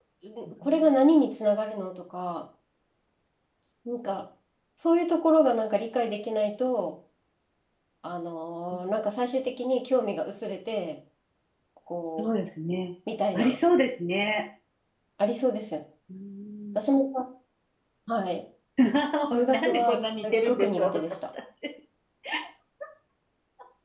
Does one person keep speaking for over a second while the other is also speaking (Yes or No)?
Yes